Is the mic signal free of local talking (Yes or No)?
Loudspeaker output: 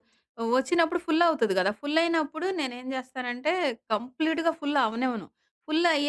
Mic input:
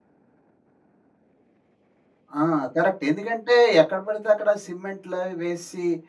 No